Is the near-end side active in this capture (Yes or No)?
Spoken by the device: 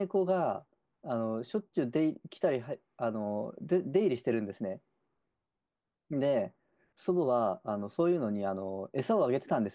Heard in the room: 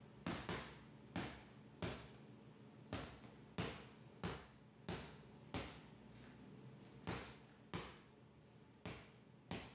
No